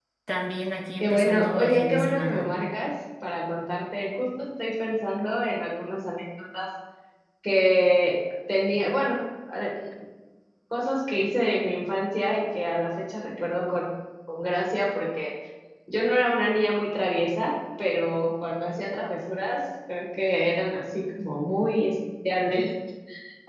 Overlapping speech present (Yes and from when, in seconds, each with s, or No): Yes, from 1.0 s